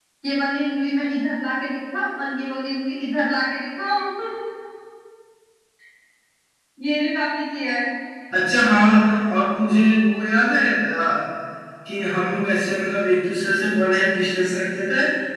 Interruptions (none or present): none